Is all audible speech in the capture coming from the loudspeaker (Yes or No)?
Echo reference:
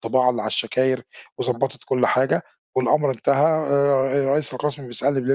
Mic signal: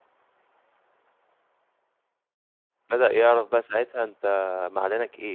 No